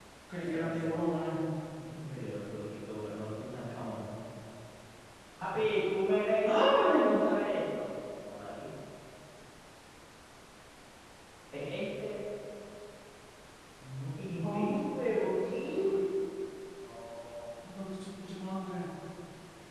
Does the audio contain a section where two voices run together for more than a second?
Yes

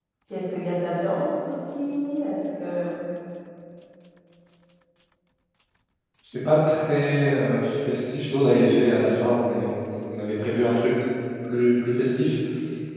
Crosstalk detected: No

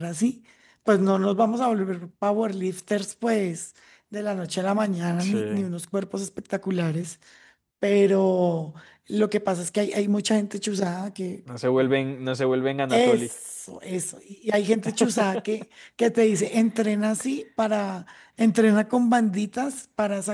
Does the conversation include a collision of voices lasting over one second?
No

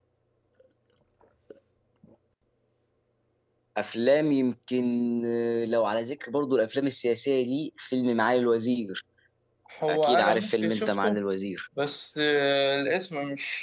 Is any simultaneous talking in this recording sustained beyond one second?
Yes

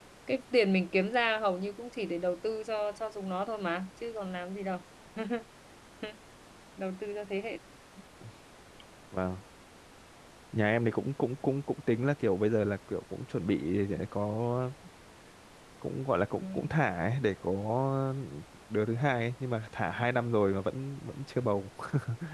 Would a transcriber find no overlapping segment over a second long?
Yes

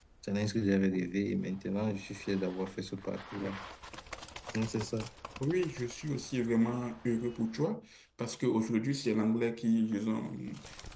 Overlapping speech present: No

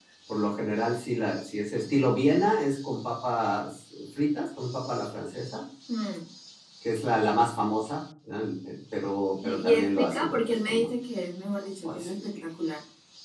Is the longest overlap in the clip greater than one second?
Yes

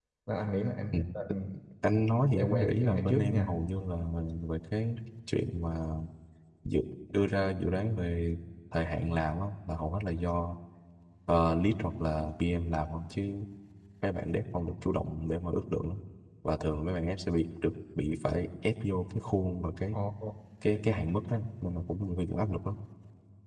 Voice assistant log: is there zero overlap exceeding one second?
No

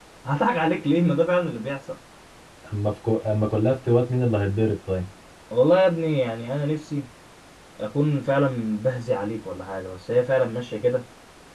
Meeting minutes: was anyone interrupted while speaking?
No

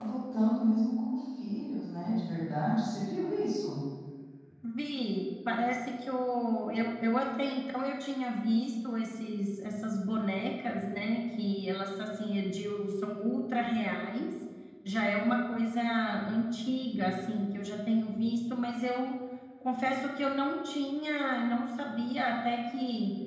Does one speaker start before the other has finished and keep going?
No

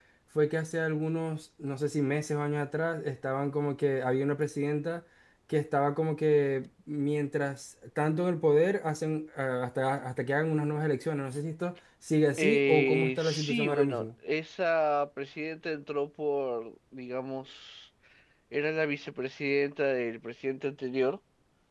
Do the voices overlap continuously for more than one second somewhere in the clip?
Yes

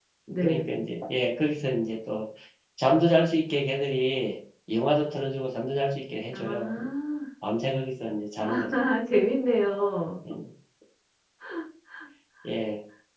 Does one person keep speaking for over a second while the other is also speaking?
No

